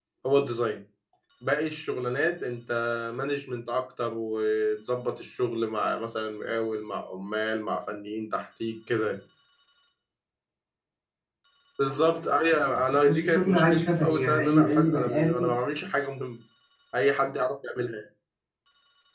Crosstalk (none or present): present